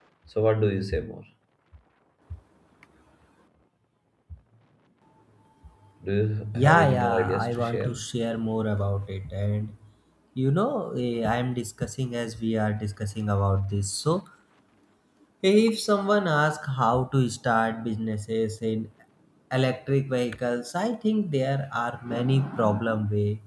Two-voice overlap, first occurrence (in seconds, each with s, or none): 6.5 s